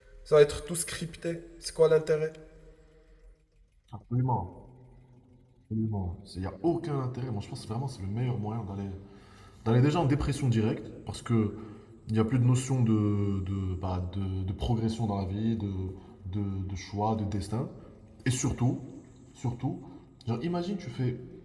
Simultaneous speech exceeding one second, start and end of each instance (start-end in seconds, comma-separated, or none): none